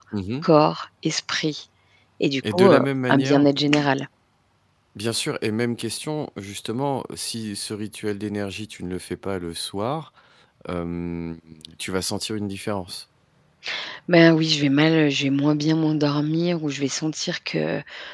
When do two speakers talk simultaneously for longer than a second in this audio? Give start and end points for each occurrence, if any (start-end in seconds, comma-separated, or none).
2.5-3.8